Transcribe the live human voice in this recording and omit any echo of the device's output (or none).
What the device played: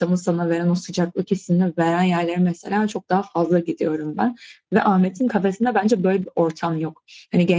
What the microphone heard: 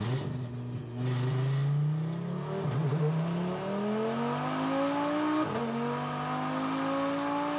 none